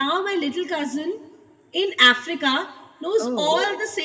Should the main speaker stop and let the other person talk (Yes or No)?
No